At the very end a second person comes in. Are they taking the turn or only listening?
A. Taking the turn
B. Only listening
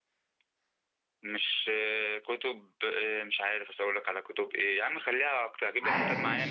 B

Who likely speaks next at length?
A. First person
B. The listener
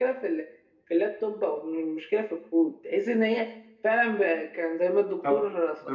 B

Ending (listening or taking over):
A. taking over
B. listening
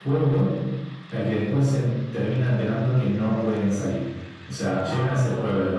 B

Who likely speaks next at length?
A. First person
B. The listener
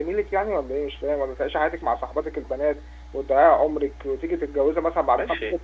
B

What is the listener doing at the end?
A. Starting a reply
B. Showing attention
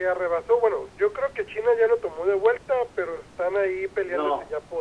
A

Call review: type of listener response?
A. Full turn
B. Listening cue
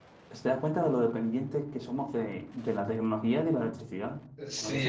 A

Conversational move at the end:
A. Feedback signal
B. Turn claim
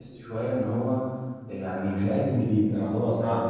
A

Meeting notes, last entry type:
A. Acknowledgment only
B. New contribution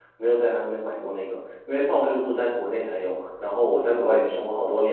A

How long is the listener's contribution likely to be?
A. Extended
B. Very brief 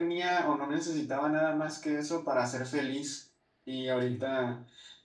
B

